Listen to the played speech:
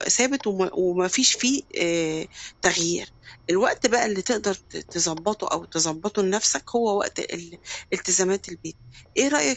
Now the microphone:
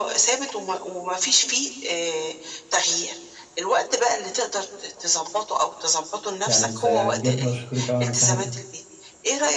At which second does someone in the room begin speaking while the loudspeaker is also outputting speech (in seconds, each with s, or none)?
6.5 s